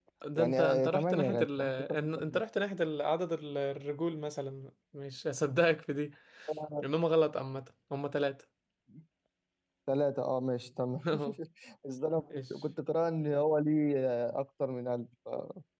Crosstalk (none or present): present